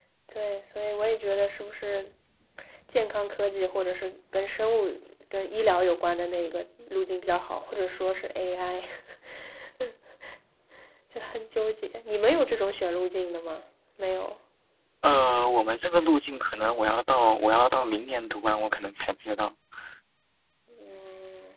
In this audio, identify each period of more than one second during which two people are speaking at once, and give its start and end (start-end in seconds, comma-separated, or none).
none